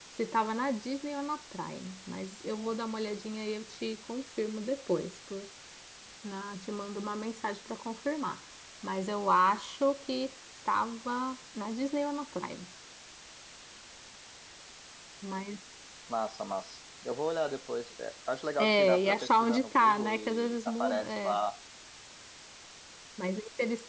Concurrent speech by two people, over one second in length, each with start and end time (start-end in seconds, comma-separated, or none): 18.6-21.4